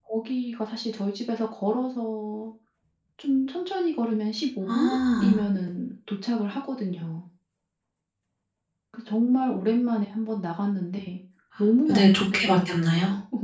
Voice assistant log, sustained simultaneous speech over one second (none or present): present